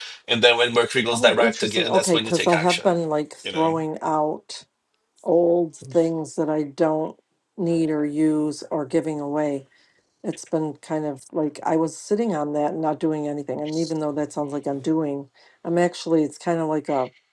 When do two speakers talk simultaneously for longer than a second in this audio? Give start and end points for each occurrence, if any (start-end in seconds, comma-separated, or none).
1.1-2.9